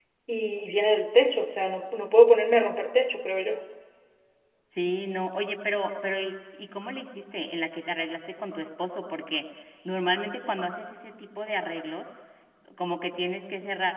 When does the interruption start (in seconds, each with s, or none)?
none